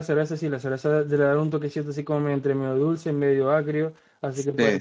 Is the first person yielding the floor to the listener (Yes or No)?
No